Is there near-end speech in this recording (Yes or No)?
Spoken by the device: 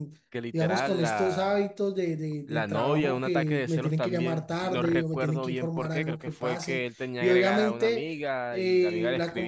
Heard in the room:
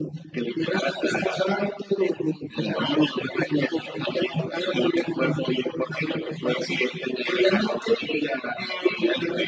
No